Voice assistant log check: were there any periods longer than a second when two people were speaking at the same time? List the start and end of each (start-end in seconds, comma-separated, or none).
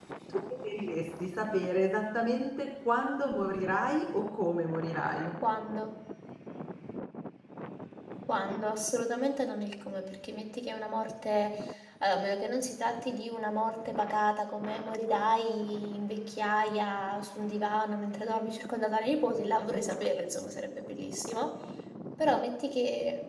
none